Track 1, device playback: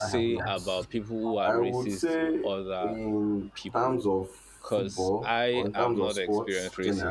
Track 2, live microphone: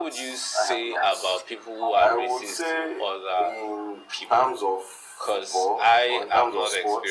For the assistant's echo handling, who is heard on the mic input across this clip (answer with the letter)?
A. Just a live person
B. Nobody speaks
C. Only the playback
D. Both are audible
C